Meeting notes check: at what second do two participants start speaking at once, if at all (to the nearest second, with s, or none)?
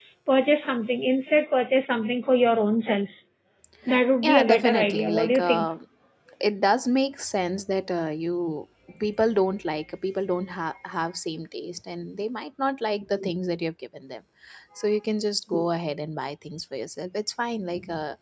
4 s